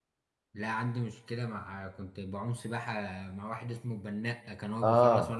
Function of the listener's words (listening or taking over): taking over